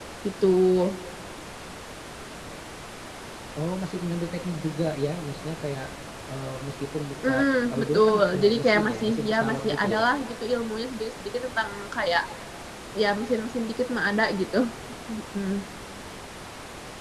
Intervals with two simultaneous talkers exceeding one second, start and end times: 7.2-10.0

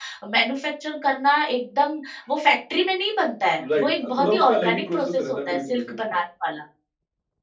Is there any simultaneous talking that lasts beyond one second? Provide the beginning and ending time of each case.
3.8-6.0

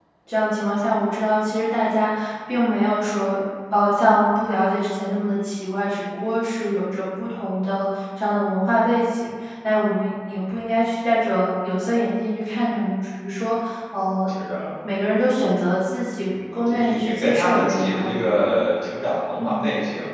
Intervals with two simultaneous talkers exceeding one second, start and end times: 16.5-18.7

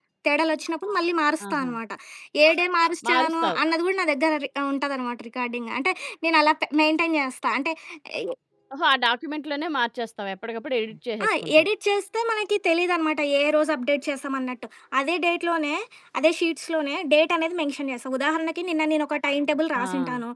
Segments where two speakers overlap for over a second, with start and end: none

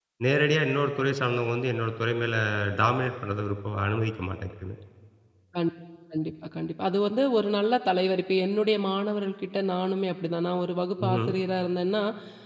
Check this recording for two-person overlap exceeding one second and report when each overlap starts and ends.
none

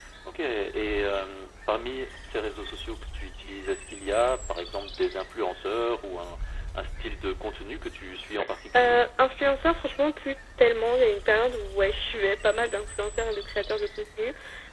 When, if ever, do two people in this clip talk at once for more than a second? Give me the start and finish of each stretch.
none

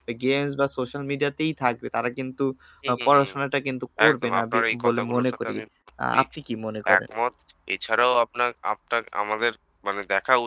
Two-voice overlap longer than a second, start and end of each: 4.1-5.6

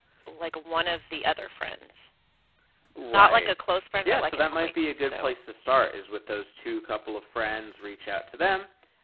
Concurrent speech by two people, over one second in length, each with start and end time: 4.0-5.3

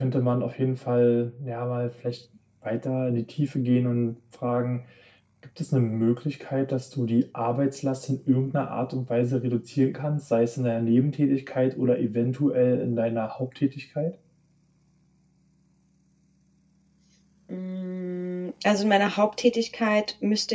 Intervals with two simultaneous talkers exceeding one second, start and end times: none

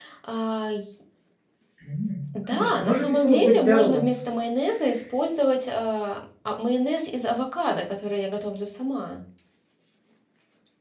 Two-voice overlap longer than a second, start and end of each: 2.4-4.1

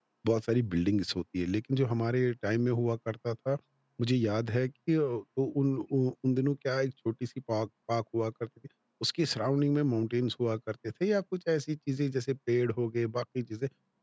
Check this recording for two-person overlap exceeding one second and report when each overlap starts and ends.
none

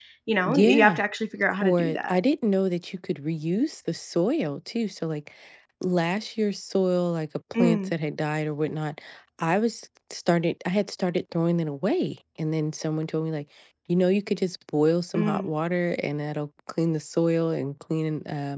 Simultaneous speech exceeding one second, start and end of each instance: none

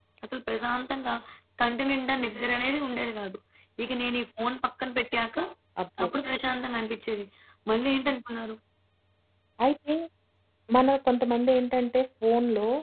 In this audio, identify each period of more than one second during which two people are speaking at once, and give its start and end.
none

